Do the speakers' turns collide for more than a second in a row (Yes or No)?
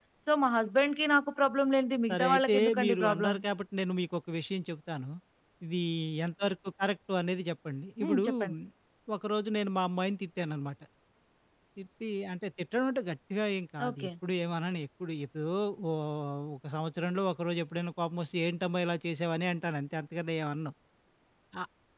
Yes